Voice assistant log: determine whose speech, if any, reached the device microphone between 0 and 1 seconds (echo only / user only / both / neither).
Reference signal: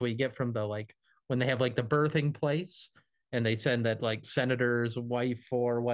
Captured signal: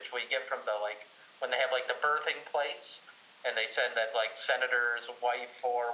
echo only